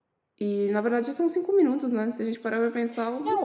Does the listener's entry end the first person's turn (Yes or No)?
Yes